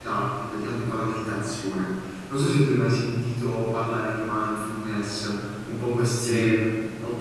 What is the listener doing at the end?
listening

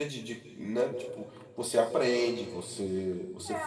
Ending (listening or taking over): taking over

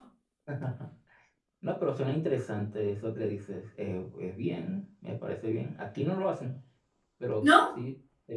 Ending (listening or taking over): listening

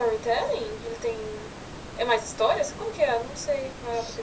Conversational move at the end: taking over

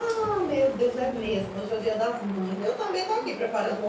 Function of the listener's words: listening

